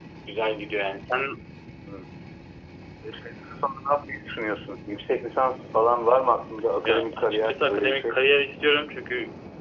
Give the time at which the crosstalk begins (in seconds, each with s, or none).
6.8 s